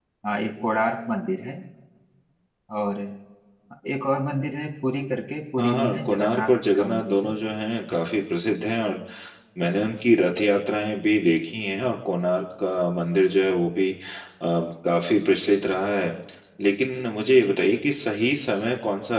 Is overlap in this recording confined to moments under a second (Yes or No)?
No